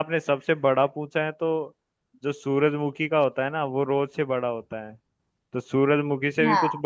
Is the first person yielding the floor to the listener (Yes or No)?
No